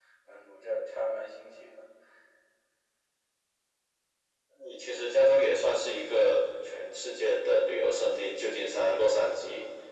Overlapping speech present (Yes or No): No